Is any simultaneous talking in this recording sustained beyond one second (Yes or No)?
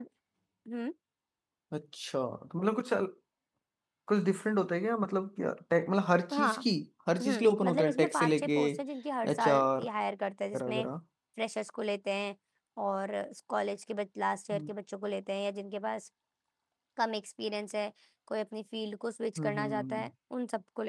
Yes